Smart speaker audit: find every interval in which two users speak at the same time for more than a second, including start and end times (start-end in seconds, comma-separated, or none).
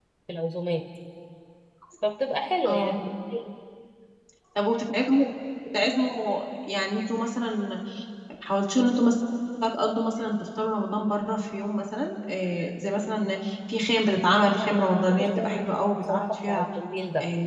14.6-16.7